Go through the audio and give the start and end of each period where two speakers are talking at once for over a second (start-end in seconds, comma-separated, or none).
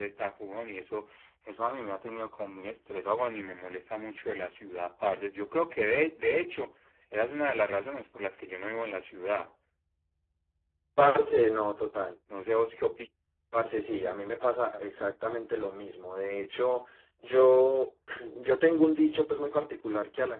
none